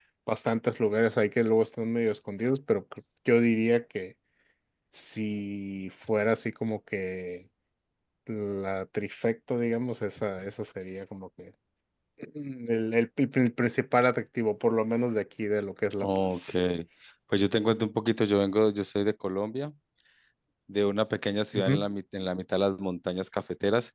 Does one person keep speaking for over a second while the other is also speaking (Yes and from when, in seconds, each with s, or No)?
No